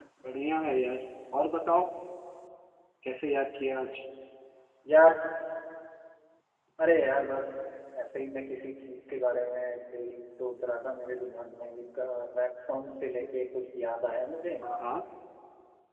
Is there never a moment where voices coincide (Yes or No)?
Yes